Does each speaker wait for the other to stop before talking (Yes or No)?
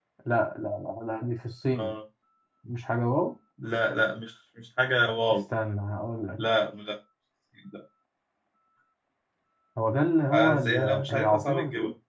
No